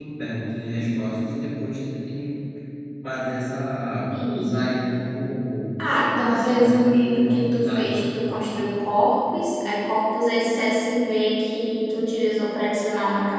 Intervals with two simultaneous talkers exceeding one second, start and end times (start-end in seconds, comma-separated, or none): 5.9-8.4